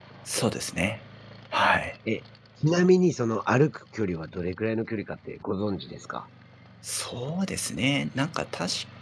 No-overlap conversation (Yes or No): Yes